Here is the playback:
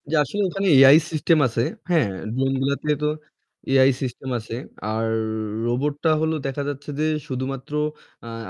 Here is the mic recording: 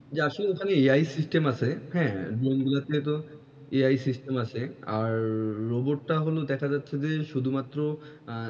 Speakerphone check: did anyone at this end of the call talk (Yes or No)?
No